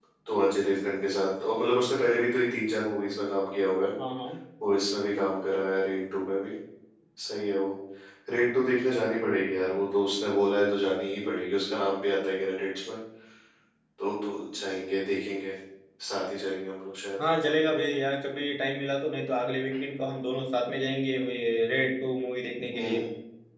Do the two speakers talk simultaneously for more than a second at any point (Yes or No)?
No